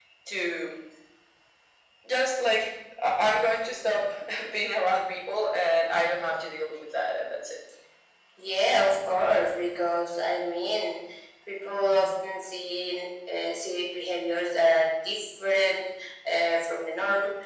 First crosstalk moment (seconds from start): none

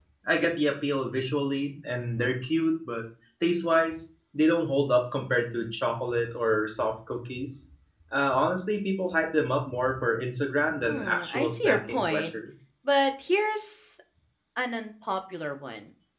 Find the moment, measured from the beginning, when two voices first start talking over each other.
10.8 s

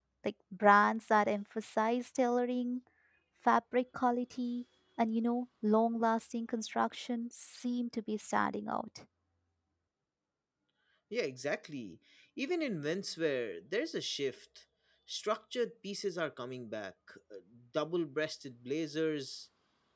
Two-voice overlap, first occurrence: none

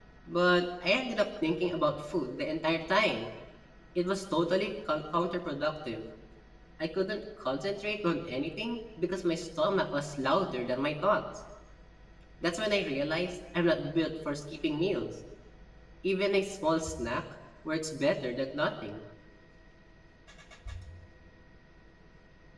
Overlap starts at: none

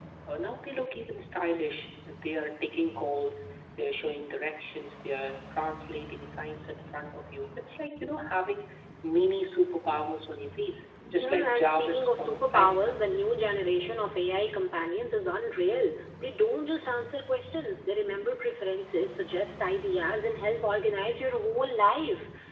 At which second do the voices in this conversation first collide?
11.2 s

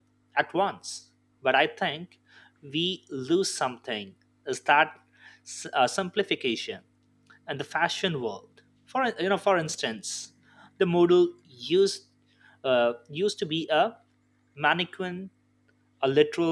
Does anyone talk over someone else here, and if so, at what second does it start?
none

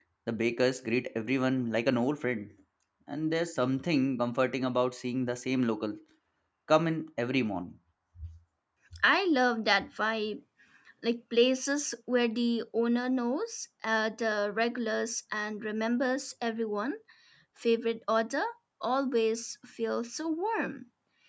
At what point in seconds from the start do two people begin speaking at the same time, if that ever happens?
none

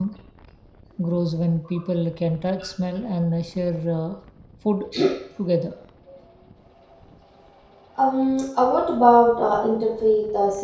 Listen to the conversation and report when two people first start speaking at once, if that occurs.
none

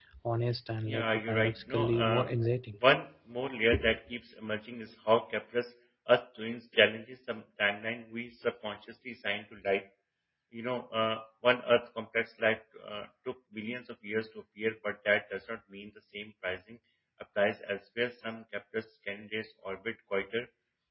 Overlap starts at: 0.9 s

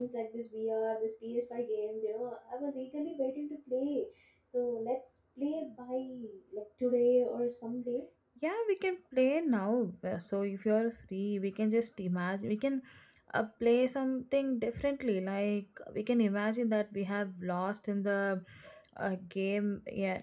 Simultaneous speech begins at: none

